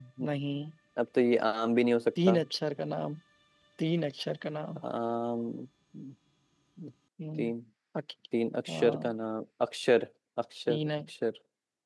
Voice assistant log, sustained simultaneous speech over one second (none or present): none